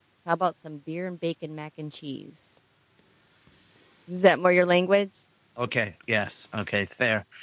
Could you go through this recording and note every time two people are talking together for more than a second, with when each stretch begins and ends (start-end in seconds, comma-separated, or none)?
none